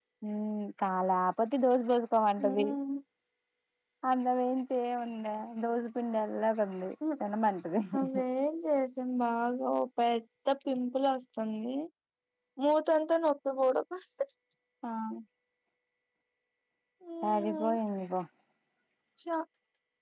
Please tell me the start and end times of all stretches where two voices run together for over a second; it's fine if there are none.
none

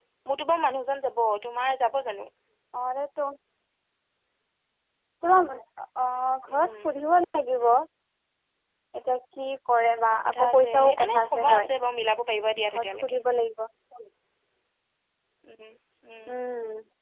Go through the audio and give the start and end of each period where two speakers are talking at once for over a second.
10.1-11.7

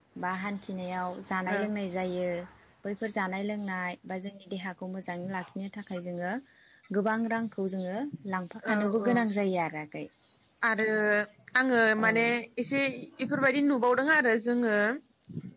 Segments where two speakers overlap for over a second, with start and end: none

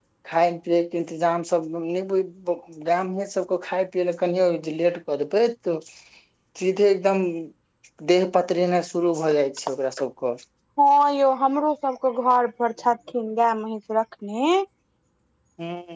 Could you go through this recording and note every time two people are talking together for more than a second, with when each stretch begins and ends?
none

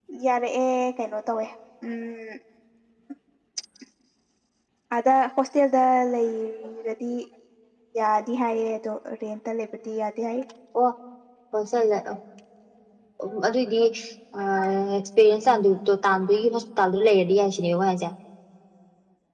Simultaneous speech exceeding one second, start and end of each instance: none

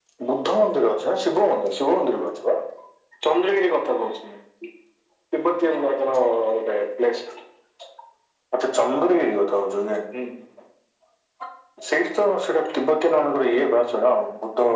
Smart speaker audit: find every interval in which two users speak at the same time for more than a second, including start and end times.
none

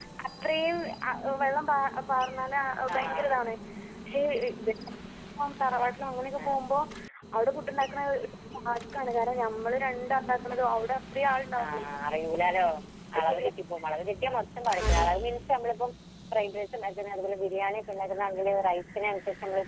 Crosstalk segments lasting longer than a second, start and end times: none

